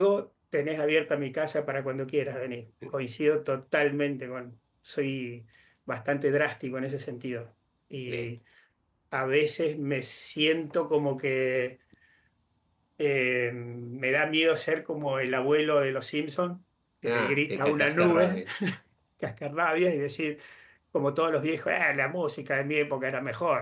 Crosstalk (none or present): present